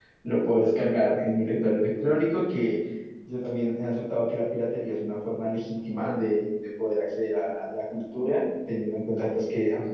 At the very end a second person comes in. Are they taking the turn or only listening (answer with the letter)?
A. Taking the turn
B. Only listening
B